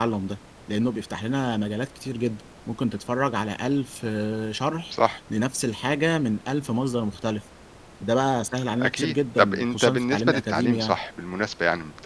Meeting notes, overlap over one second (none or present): present